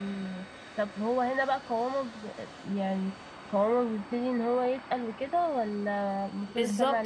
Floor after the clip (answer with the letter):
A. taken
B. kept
A